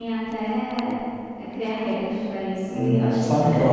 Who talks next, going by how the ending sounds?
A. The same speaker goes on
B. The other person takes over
B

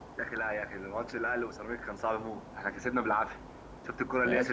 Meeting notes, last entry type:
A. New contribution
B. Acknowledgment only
A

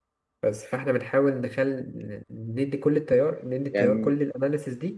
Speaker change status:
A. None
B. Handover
A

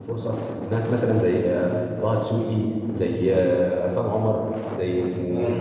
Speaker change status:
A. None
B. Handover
B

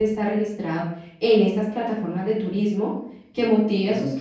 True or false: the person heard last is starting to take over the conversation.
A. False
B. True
A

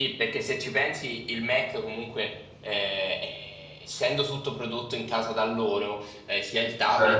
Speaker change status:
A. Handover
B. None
B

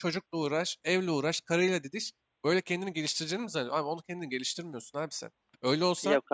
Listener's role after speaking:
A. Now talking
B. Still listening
B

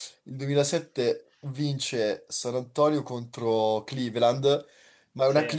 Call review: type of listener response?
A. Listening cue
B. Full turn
A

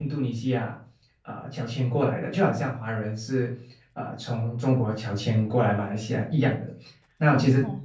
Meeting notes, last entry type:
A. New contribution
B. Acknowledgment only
B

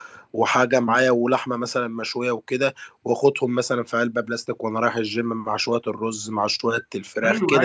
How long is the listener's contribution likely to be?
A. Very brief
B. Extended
B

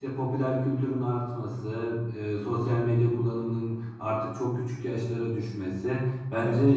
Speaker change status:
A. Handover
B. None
B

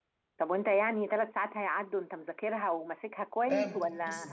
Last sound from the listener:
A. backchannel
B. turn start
B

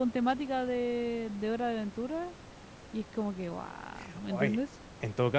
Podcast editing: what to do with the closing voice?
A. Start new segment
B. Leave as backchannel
A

